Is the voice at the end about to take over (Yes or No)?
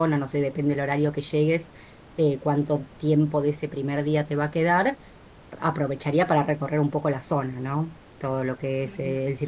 No